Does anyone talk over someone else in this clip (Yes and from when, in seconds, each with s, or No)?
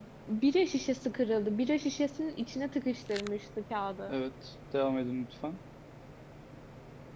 No